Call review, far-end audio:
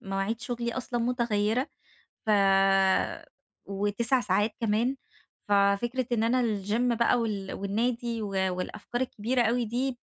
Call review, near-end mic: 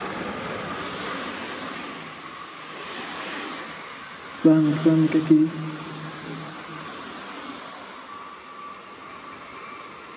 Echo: none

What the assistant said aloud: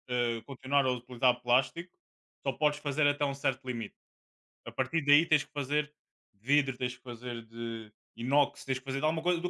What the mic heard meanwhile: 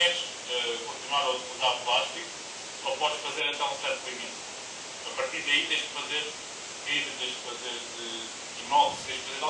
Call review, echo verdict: present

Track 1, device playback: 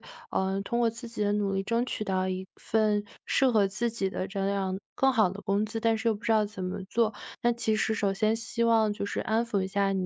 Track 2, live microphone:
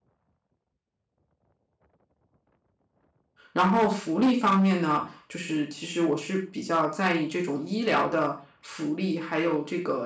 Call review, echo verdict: none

